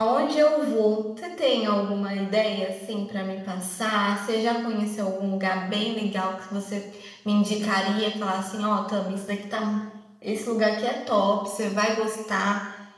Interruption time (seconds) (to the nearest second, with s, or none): none